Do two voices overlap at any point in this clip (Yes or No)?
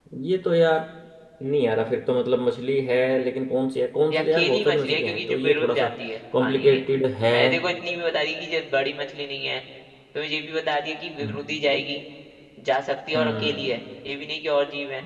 Yes